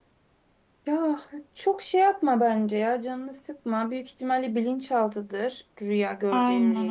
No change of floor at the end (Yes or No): No